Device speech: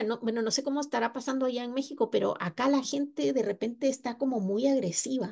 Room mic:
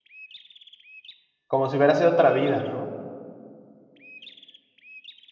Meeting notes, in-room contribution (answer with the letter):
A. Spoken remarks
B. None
A